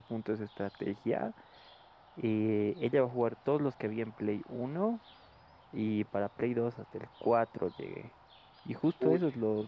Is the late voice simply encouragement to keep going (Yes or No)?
Yes